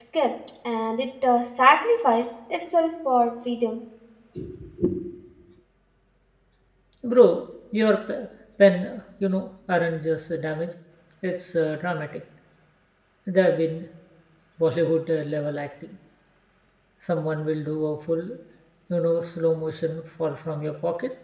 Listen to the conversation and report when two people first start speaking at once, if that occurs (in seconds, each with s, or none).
none